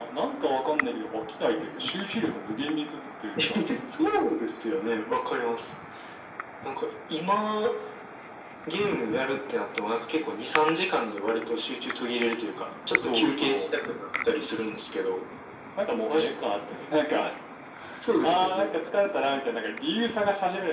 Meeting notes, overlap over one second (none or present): present